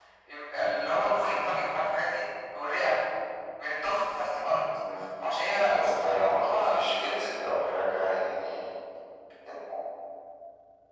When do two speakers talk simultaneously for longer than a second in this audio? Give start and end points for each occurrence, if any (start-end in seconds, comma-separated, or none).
5.7-7.3